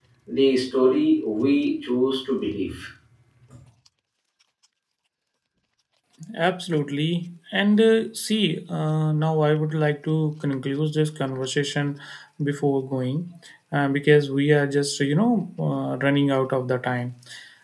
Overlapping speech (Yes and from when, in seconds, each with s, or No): No